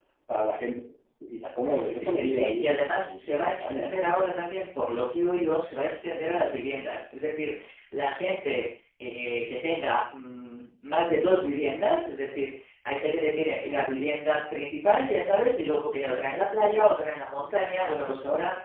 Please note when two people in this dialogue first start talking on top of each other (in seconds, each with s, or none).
1.6 s